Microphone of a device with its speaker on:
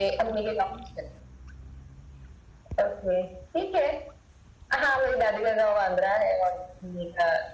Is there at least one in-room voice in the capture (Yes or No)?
No